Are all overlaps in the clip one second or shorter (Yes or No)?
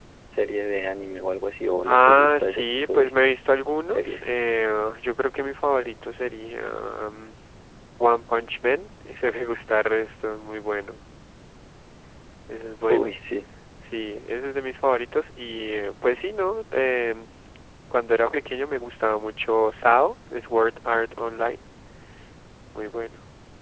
No